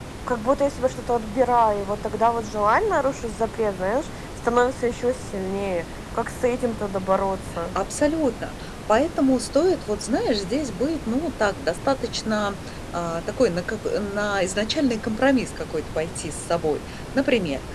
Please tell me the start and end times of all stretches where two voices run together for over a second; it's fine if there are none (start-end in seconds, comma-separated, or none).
none